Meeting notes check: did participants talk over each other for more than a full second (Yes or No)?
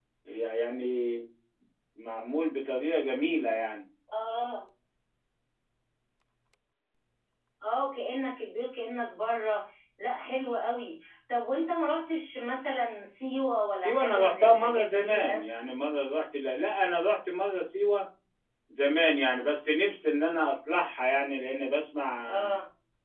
Yes